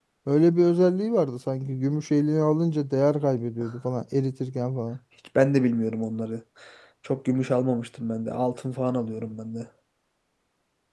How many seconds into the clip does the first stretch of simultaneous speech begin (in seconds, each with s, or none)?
none